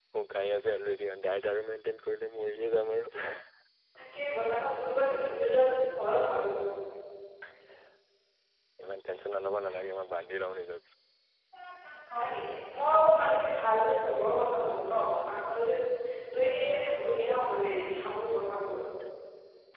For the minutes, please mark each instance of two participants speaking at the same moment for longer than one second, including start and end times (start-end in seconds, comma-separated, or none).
none